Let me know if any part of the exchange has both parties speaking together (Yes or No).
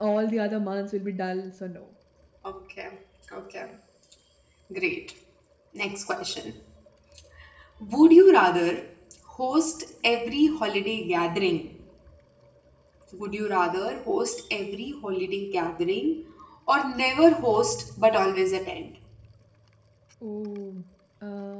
No